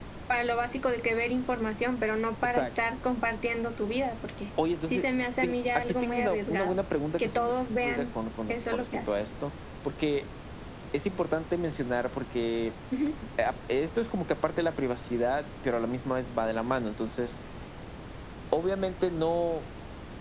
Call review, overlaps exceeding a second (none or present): present